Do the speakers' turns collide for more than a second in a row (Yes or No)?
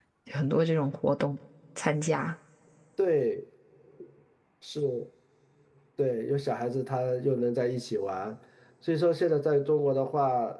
No